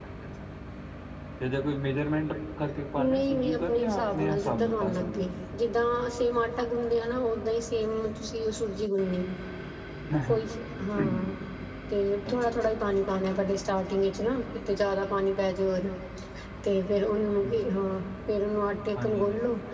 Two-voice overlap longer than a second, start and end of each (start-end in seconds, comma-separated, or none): 3.0-5.2